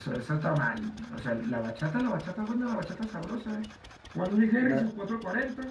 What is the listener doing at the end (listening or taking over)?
listening